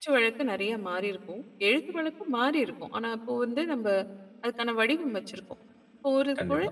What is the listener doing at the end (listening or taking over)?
listening